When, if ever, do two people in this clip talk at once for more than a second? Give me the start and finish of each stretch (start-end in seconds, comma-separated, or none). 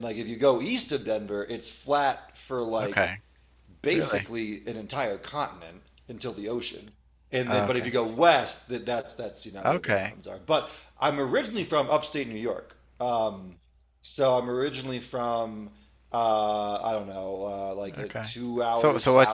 none